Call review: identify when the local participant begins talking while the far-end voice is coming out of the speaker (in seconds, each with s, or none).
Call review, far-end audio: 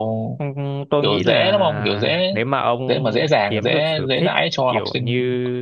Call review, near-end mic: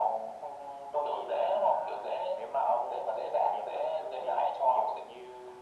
none